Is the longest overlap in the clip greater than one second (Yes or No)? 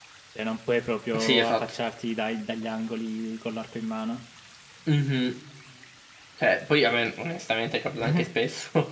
No